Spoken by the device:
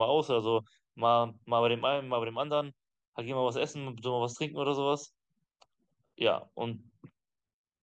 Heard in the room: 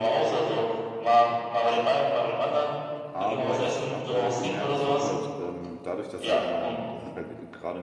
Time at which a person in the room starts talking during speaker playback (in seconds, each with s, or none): 3.1 s